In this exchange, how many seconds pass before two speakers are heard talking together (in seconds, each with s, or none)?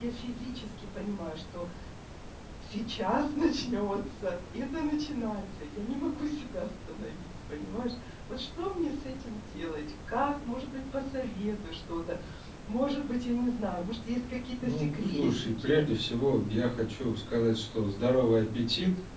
14.6 s